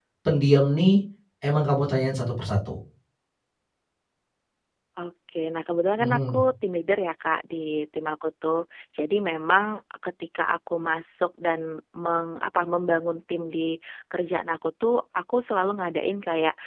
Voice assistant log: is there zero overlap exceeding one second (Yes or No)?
Yes